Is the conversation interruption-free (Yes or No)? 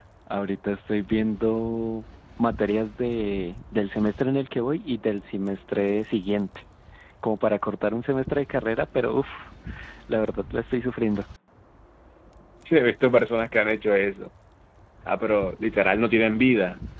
Yes